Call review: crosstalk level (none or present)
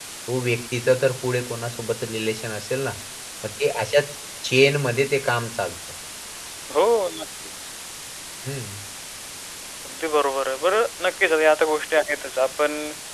none